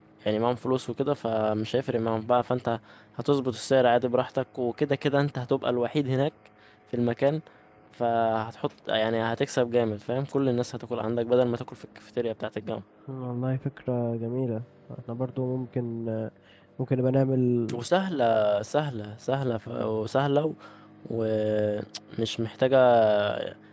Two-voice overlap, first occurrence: none

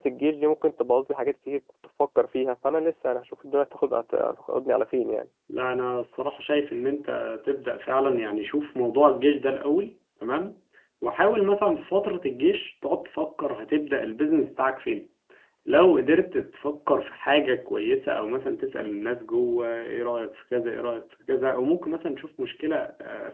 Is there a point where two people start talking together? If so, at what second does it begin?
none

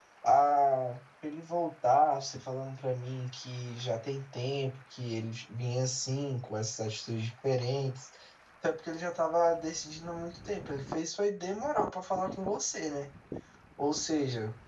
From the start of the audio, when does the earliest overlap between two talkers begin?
none

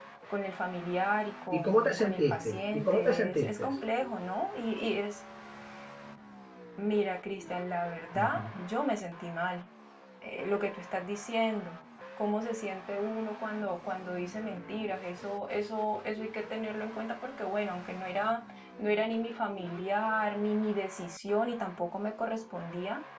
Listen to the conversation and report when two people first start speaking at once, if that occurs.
1.5 s

